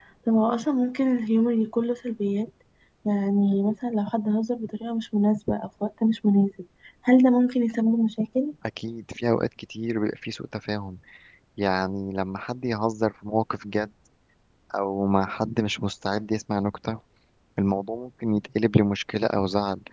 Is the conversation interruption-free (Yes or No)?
Yes